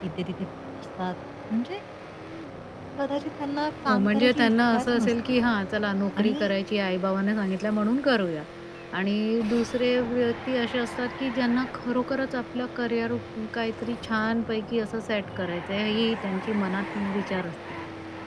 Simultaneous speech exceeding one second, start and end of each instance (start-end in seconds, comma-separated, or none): 3.9-5.4